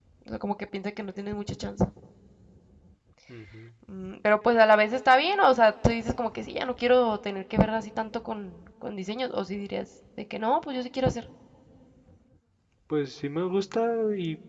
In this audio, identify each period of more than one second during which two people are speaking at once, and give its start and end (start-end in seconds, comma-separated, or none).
none